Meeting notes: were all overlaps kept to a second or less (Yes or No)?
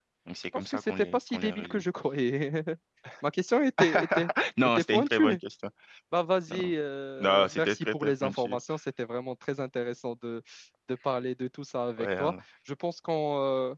No